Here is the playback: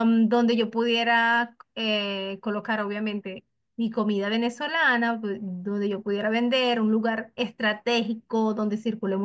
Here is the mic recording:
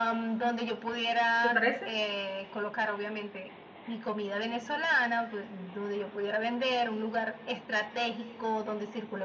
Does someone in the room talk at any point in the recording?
Yes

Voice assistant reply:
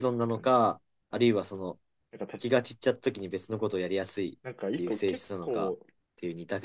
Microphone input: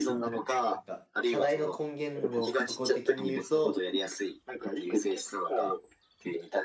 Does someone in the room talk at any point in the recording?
Yes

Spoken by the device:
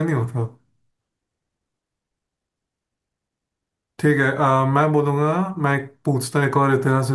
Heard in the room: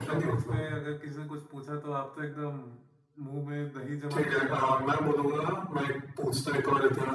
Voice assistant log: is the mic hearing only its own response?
No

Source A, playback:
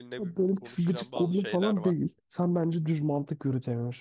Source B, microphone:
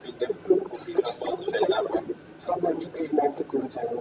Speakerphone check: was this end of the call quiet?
Yes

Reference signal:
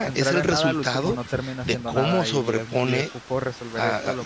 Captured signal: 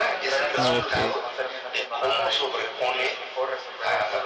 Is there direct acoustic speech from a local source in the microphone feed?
Yes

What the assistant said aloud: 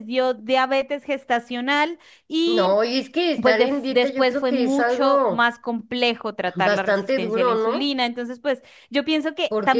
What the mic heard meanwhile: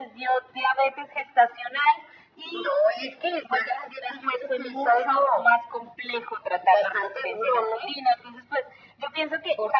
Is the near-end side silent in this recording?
Yes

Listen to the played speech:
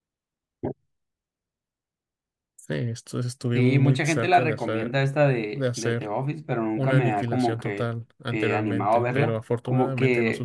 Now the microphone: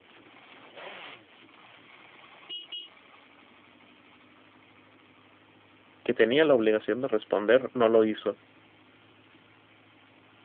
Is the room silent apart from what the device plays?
No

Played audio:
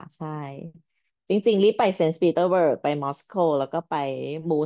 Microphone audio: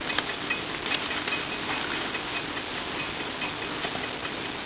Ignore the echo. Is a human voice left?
No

